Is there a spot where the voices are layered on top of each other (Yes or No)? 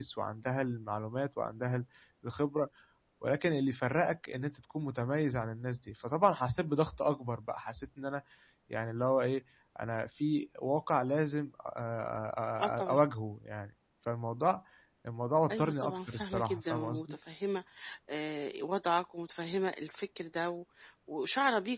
Yes